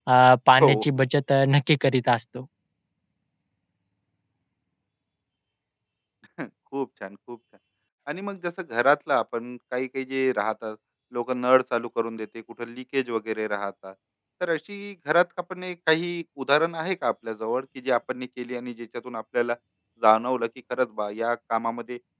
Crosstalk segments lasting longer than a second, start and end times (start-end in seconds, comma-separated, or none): none